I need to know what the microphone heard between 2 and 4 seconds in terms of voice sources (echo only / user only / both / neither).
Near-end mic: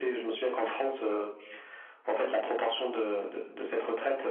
echo only